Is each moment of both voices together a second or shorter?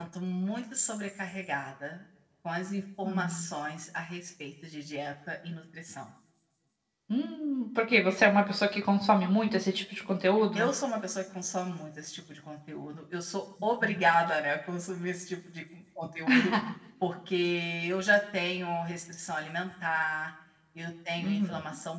Yes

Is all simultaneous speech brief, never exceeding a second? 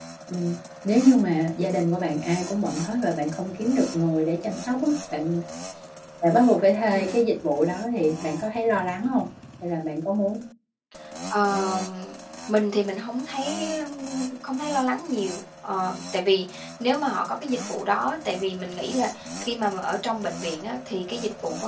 Yes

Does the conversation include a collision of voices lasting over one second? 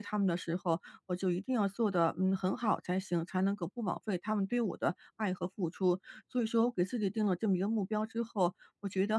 No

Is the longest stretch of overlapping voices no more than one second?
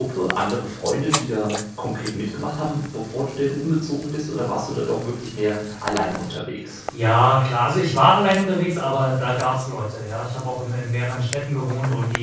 Yes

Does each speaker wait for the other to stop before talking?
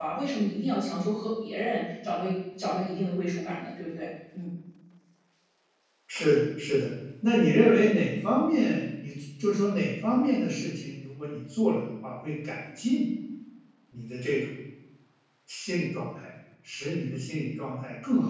Yes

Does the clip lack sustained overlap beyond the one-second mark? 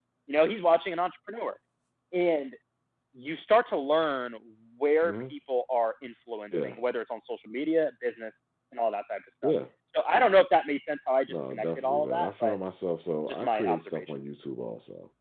No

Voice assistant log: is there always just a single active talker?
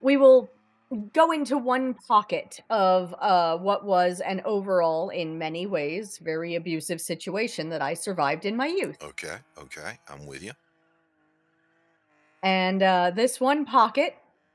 Yes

